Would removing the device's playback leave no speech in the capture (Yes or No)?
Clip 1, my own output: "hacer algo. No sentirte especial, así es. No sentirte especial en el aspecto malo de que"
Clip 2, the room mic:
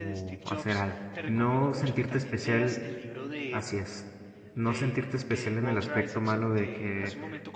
No